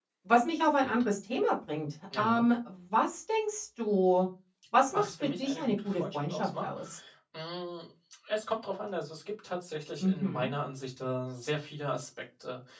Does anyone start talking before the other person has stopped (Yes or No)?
Yes